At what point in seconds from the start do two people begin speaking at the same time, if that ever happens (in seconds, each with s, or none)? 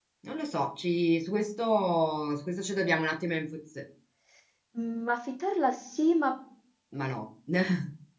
none